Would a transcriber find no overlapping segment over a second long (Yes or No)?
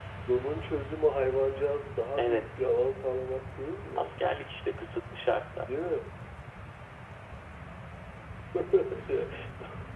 Yes